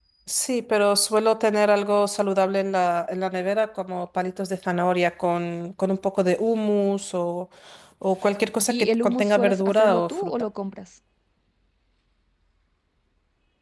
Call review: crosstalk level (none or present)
present